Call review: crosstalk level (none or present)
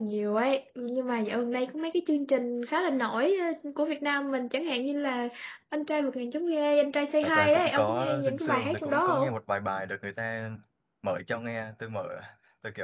present